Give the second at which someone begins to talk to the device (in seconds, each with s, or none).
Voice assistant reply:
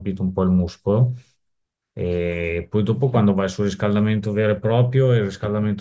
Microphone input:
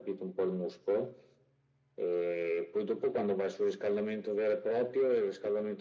none